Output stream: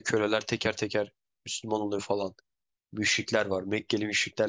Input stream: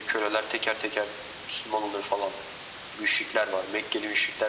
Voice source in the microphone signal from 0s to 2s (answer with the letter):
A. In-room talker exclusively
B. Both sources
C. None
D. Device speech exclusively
D